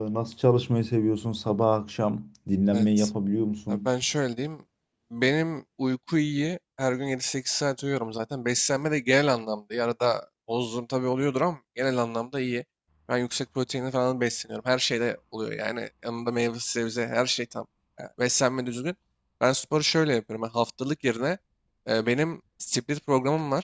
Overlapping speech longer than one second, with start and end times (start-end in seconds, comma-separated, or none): none